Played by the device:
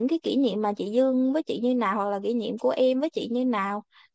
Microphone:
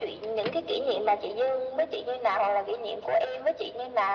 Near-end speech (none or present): none